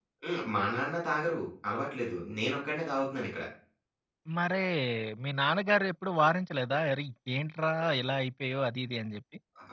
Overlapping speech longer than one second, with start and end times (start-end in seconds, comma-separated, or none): none